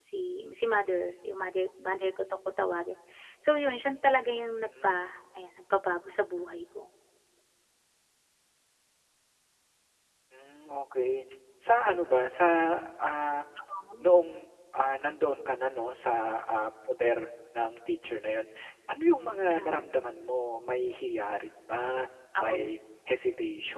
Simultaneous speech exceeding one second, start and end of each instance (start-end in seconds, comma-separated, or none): none